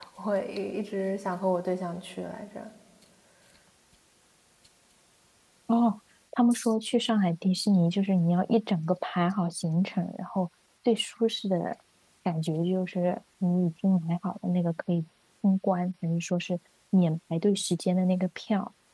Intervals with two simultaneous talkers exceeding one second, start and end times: none

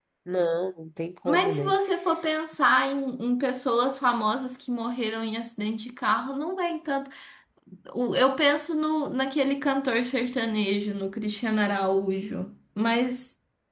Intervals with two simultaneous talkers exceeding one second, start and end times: none

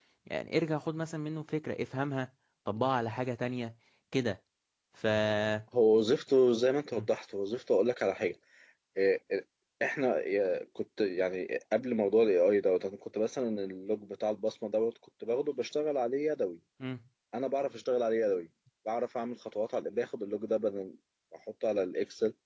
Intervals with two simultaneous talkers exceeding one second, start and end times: none

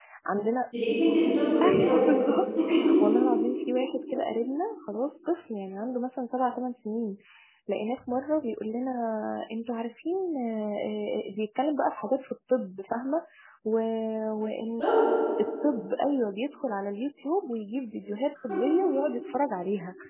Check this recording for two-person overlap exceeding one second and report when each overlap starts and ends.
none

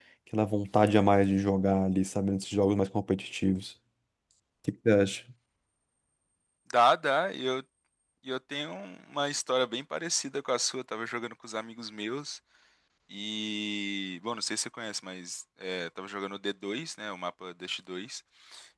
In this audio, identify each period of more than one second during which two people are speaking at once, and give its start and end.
none

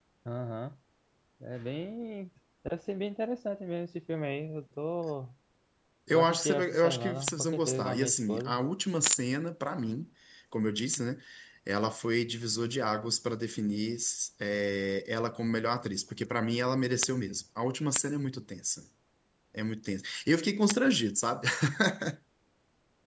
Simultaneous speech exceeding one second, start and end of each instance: 6.1-8.6

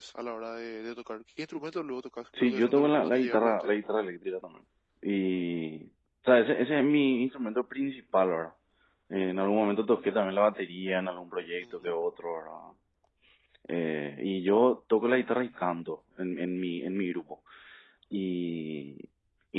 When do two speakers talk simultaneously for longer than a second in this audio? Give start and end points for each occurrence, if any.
2.4-3.7

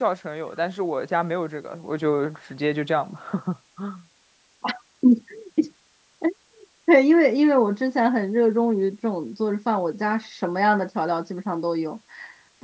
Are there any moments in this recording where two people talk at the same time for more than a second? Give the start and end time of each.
none

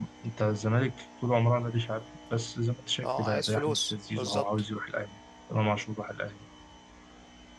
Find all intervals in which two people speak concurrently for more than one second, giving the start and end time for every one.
3.0-4.5

